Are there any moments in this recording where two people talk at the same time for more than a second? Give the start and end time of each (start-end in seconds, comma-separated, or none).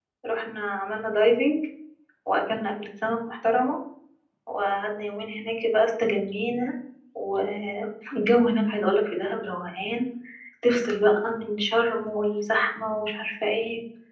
none